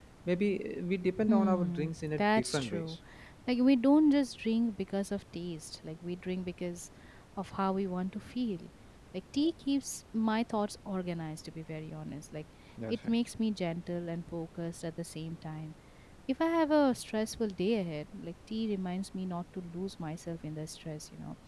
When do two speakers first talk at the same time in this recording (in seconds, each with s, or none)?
1.2 s